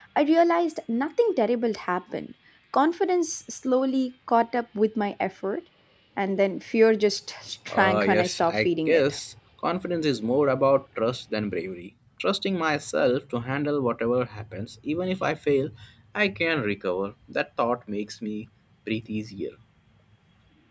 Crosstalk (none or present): present